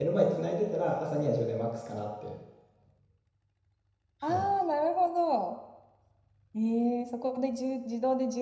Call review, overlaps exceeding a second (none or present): none